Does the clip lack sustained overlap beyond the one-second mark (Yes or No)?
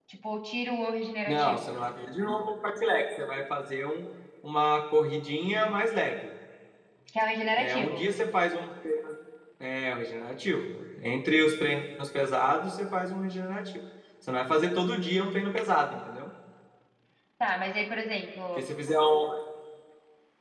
Yes